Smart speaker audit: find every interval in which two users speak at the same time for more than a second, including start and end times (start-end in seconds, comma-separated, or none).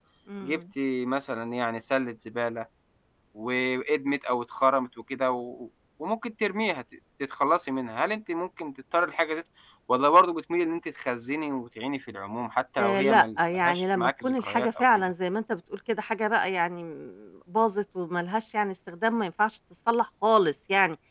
12.8-14.8